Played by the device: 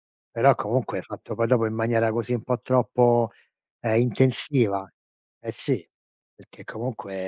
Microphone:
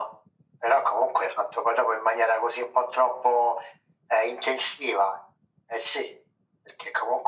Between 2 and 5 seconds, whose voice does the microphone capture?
echo only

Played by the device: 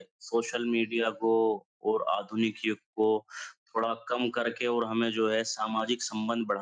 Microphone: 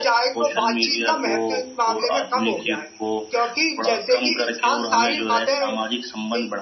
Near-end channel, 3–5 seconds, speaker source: both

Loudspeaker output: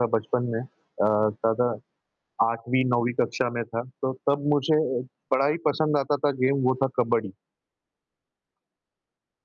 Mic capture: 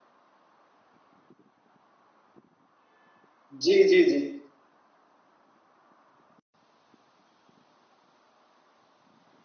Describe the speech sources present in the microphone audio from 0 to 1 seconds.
neither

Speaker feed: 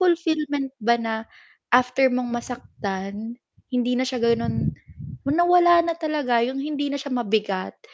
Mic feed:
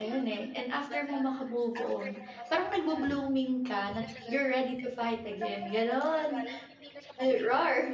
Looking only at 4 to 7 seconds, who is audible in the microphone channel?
both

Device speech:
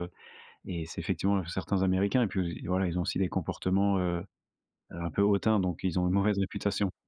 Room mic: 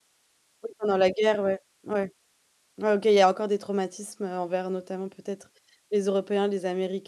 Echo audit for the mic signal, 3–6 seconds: user only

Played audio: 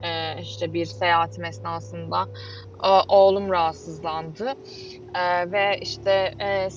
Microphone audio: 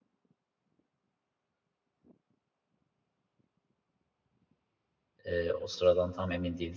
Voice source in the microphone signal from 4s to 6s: user only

